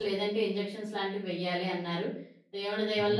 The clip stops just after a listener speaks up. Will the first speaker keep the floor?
Yes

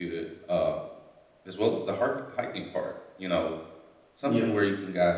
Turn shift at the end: No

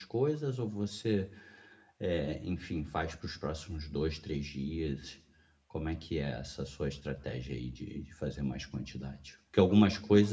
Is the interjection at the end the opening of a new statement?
No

